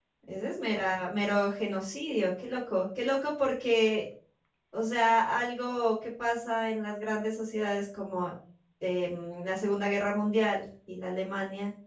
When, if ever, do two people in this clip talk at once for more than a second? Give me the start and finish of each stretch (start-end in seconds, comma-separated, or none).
none